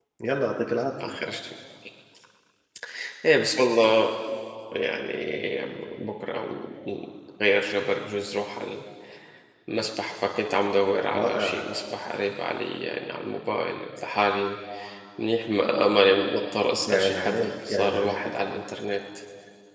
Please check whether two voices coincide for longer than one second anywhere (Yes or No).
Yes